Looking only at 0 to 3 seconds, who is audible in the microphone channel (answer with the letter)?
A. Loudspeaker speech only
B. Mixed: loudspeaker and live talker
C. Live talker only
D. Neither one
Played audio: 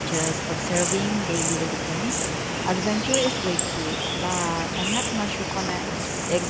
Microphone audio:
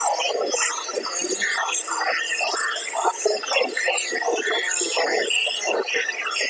A